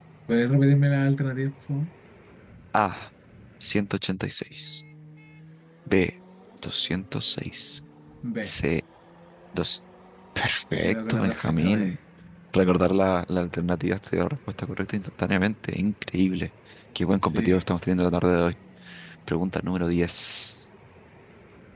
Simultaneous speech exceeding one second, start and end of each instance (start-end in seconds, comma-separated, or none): 10.7-11.9